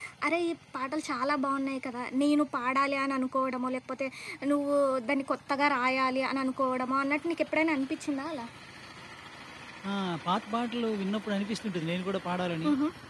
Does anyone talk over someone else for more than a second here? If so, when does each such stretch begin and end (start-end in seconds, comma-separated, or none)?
none